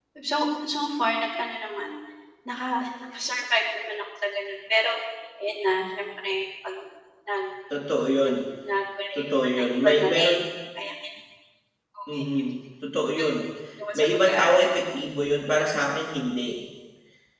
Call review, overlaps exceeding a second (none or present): present